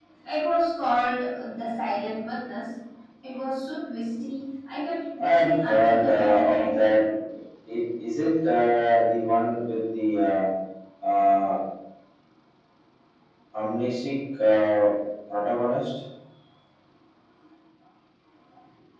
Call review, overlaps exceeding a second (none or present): present